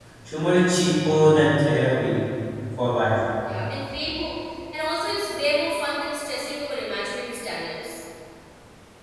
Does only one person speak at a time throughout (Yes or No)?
Yes